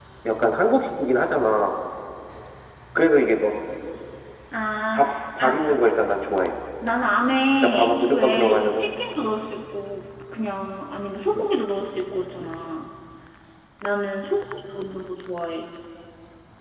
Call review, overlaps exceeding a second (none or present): present